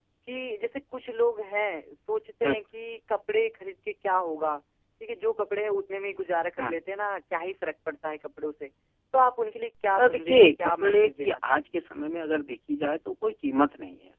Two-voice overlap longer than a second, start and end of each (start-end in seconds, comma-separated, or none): 9.9-11.6